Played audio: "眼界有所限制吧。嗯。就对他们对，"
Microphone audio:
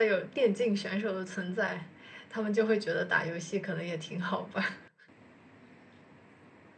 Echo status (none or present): none